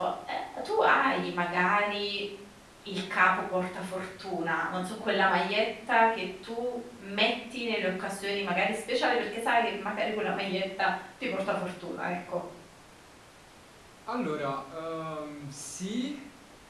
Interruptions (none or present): none